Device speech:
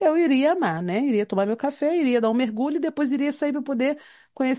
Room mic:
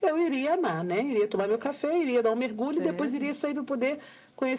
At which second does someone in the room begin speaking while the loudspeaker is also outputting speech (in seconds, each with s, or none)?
2.8 s